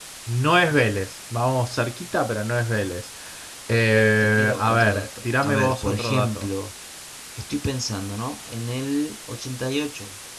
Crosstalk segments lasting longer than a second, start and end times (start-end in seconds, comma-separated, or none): 4.2-6.5